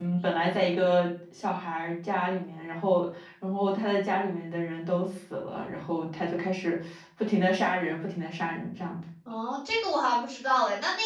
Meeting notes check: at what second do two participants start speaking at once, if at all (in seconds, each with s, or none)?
none